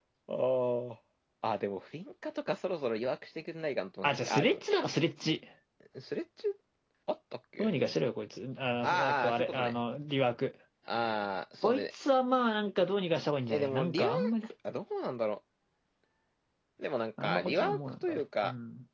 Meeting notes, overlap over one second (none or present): present